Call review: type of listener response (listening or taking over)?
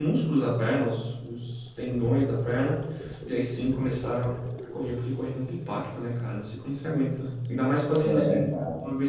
listening